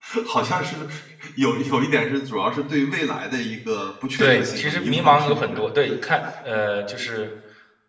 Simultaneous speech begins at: 4.2 s

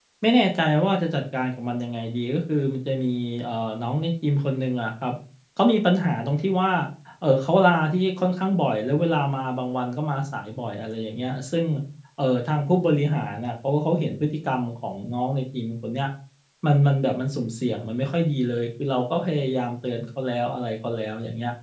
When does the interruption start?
none

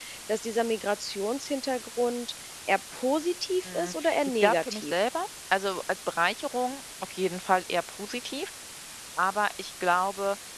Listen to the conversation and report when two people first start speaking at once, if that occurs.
3.6 s

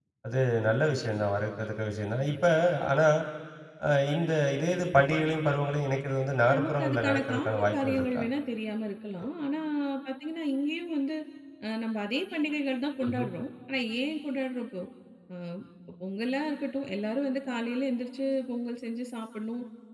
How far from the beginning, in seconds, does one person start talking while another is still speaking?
6.5 s

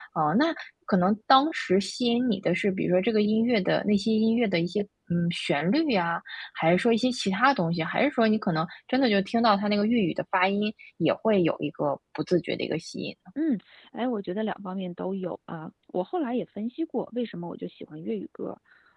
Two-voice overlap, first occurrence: none

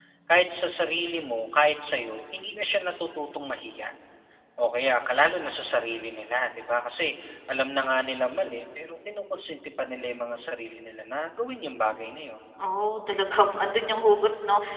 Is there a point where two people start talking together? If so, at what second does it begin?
none

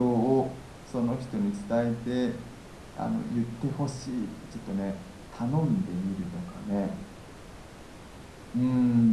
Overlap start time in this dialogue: none

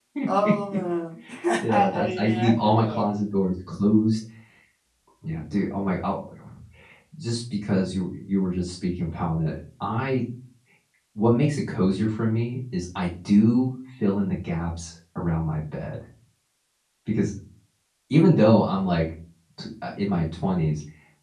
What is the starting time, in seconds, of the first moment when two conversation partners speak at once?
1.7 s

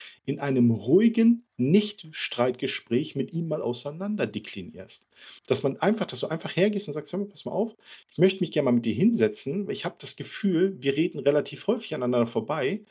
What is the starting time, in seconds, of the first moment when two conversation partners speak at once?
none

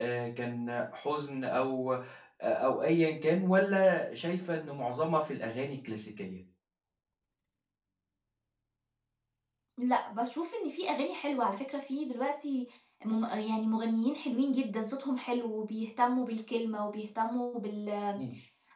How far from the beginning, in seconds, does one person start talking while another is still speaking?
none

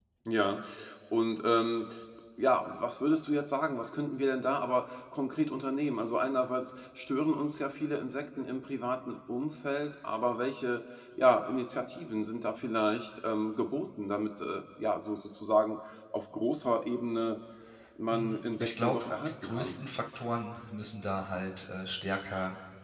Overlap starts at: 18.1 s

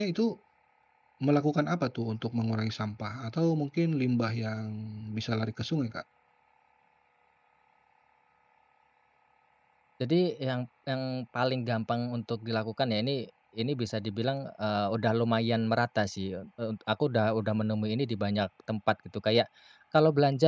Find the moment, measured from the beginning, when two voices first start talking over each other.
none

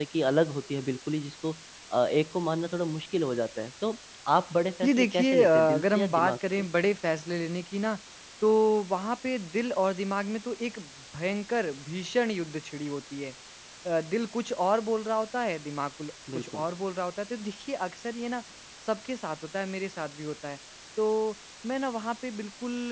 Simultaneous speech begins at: 4.8 s

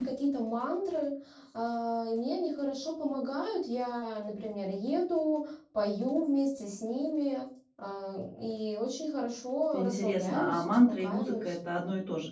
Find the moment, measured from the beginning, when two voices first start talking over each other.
9.7 s

